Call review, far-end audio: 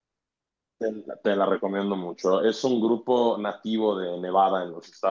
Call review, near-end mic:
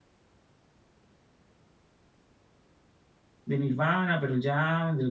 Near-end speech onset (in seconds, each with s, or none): 3.4 s